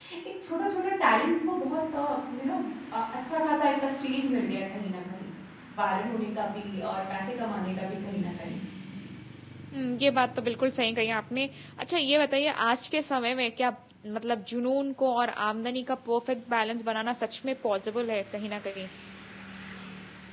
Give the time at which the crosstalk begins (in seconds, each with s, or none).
none